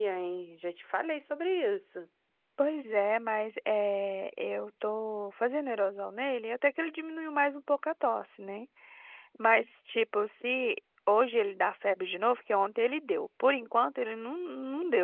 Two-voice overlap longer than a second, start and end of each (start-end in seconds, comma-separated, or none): none